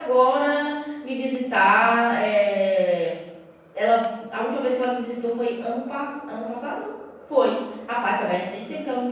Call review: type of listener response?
listening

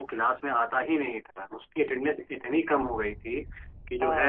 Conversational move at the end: listening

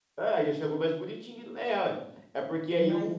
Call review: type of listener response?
listening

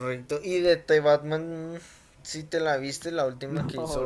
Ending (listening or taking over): taking over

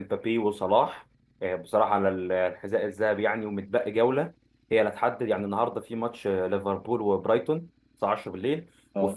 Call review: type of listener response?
listening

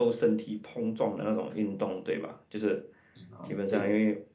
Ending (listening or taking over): listening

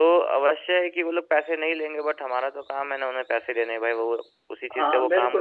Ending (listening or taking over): taking over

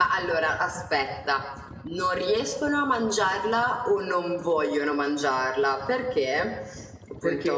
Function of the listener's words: listening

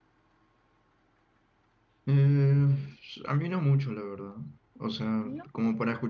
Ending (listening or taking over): listening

